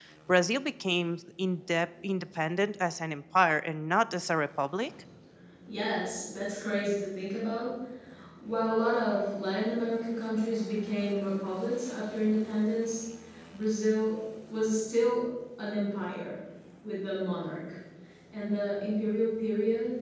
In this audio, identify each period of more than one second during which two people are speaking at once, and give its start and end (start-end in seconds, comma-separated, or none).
none